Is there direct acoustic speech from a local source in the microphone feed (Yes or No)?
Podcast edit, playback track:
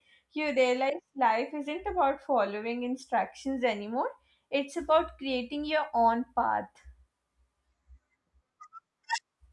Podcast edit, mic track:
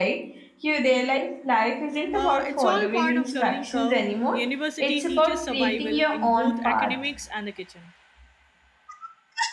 Yes